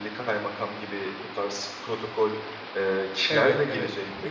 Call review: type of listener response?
taking over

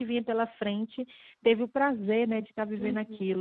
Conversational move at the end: taking over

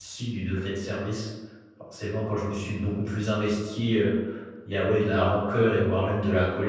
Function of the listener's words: listening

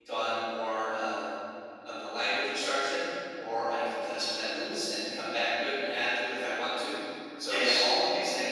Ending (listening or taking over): listening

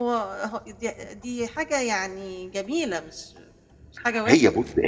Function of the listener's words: taking over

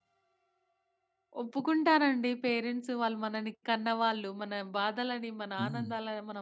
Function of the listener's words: listening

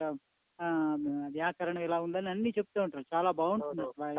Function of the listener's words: taking over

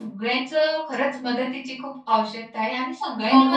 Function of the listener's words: taking over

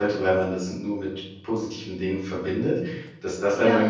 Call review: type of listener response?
listening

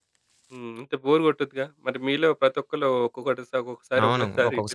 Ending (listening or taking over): taking over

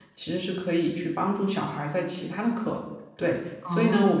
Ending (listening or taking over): listening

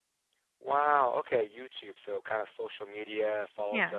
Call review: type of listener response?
listening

